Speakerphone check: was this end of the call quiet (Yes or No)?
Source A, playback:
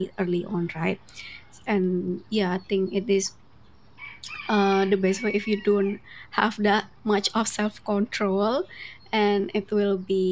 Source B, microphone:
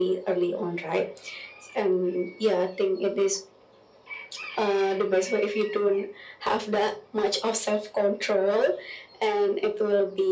Yes